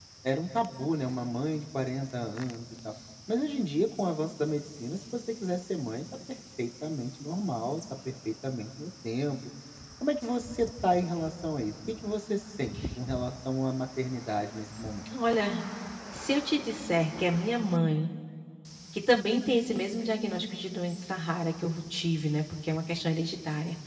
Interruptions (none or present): none